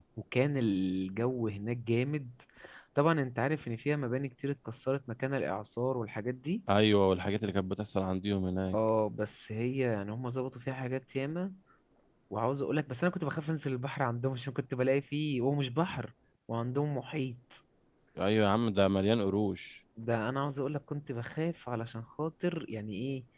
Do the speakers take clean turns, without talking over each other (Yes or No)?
Yes